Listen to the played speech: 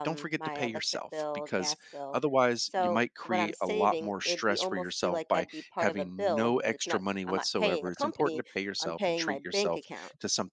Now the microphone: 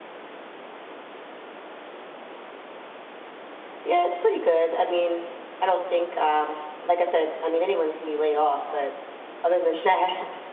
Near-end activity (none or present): present